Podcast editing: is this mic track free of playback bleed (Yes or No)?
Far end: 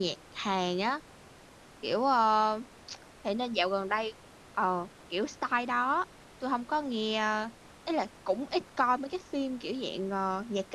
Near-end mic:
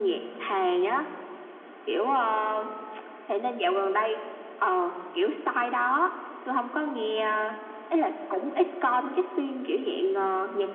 No